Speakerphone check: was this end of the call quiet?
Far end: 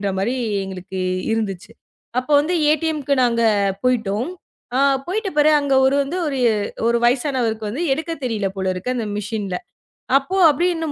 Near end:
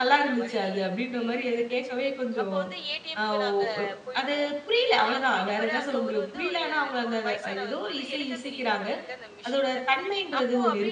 No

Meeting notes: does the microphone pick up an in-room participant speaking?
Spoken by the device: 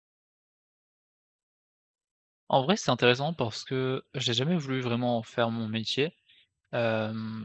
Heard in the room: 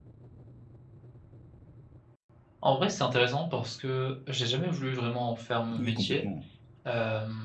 Yes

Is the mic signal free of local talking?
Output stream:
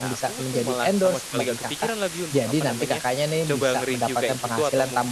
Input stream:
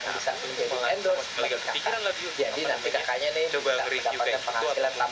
Yes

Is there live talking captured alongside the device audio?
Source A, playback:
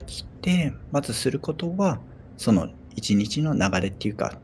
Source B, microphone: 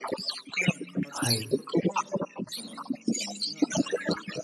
Yes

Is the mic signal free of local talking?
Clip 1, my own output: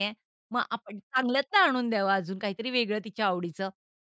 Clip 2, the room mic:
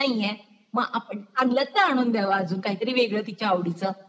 Yes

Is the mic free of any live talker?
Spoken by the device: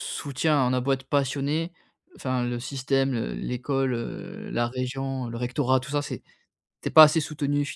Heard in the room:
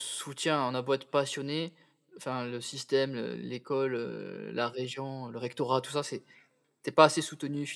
Yes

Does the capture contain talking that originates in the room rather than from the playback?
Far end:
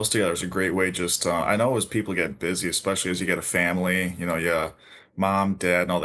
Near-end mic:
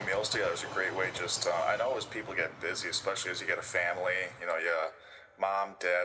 No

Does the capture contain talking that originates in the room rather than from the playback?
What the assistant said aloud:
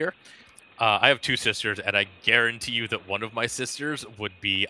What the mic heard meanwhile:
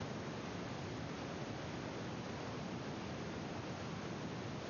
No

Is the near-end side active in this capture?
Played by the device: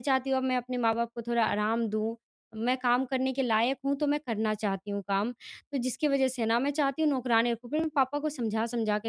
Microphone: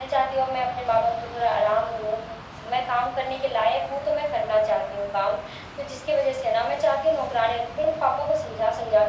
No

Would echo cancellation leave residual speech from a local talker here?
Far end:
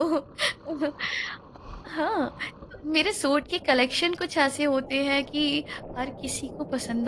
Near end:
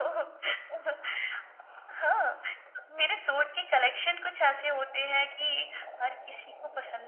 No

